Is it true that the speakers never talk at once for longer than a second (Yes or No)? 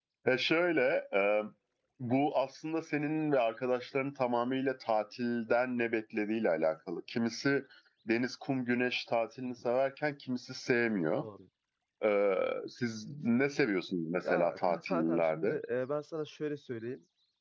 No